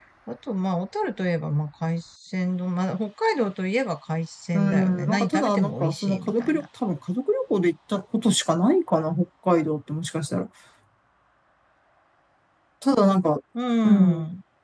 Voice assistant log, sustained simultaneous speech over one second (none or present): present